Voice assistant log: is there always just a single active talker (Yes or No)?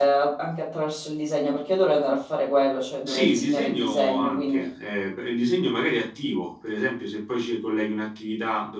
No